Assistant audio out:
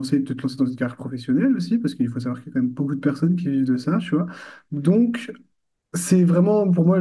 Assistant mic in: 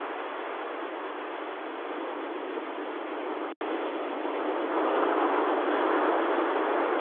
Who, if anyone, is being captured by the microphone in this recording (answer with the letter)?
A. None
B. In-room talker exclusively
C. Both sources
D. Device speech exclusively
A